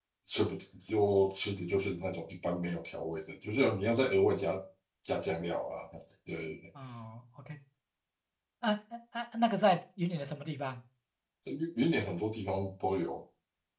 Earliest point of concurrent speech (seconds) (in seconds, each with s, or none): none